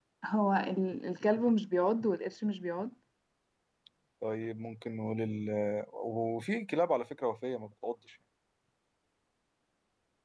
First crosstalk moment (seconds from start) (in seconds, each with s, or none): none